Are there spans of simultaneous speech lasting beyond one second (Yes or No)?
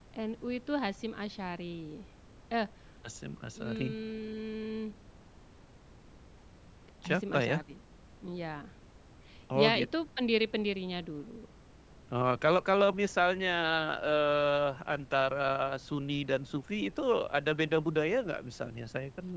No